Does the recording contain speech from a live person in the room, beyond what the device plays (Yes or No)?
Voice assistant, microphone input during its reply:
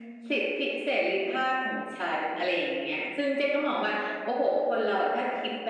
No